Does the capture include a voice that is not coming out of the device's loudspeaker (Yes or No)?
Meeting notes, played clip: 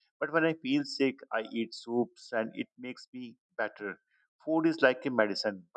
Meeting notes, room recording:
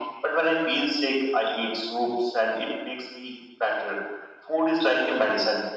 No